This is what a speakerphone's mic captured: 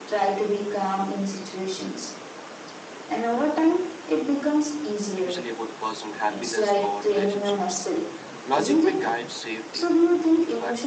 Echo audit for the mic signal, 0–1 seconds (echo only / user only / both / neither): echo only